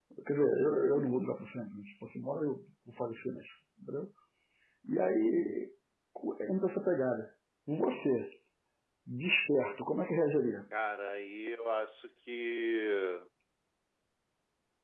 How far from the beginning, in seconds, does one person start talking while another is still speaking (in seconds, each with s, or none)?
none